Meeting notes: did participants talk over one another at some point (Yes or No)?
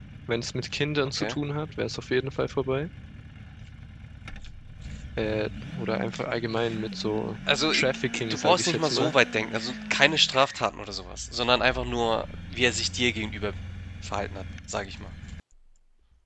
Yes